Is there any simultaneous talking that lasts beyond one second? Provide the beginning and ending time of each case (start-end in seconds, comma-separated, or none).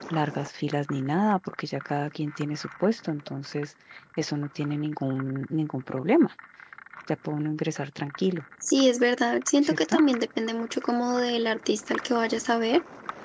none